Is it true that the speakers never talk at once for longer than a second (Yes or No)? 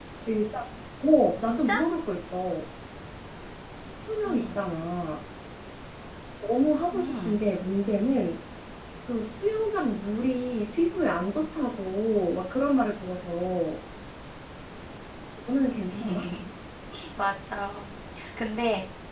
Yes